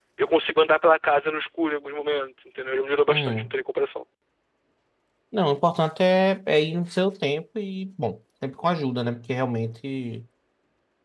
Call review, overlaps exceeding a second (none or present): none